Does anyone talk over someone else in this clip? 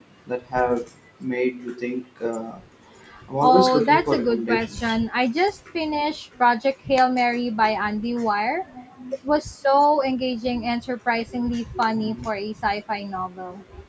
Yes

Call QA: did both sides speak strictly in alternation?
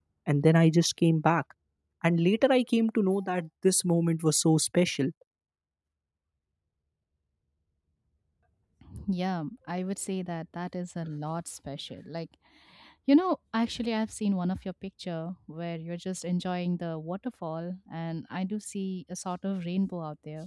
Yes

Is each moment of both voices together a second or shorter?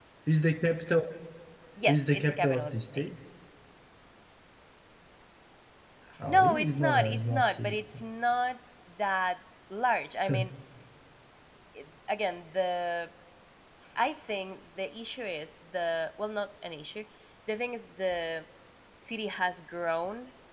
No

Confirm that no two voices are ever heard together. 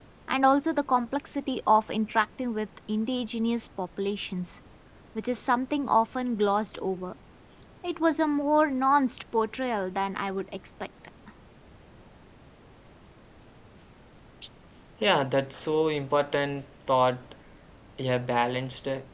Yes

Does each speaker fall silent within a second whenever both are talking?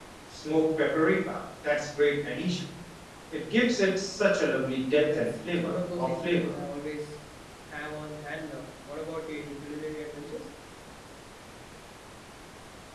No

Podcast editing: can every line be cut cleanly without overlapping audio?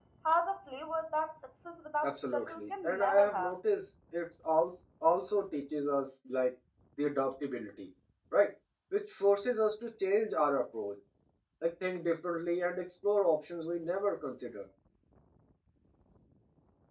No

